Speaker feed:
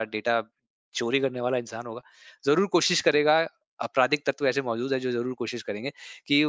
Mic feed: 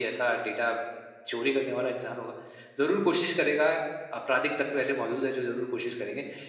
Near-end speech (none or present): none